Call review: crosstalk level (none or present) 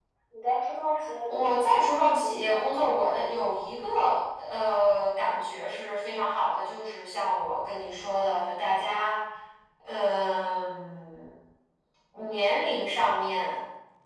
present